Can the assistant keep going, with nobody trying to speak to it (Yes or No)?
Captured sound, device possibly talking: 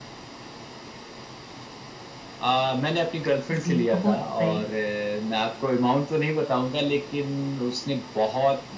No